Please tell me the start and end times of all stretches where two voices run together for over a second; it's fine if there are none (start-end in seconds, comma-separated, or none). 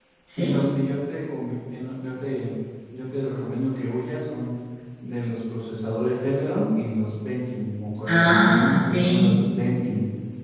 8.1-9.3